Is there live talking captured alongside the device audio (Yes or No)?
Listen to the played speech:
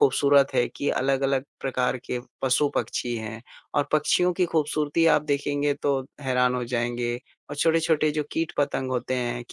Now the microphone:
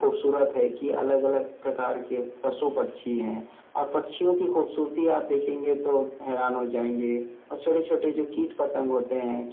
No